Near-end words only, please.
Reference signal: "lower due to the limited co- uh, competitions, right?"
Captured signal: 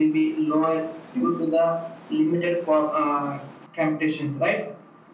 none

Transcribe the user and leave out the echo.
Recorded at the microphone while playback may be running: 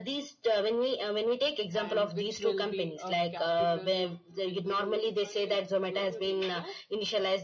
and which will be a capital with a huge funding don't you think so

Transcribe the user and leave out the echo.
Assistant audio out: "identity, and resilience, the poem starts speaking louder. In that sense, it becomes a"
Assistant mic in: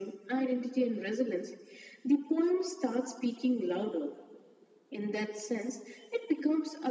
none

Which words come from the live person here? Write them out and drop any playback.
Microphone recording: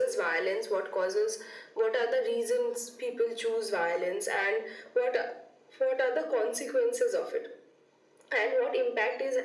none

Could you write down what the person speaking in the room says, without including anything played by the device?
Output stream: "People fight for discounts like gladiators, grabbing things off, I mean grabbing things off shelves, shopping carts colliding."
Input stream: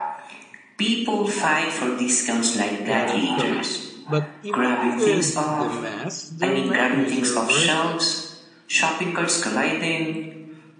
that is correct. But even with the mess, the memories are worth it.

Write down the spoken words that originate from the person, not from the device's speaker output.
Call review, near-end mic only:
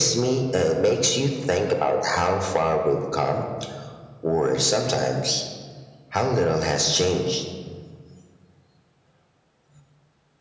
none

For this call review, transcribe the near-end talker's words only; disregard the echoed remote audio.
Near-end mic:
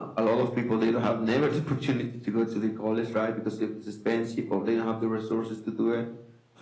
none

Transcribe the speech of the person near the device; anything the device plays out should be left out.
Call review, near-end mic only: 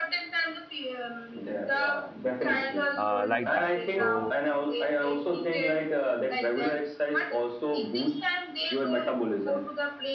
uh, like that so

